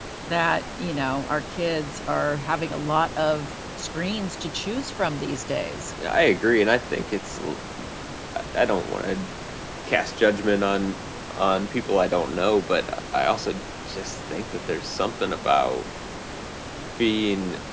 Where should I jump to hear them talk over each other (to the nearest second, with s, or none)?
none